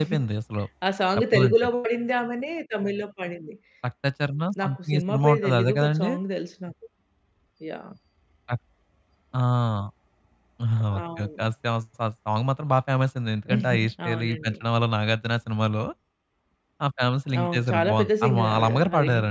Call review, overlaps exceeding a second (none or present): present